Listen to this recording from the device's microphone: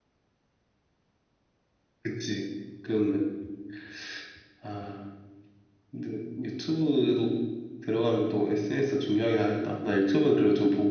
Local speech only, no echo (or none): none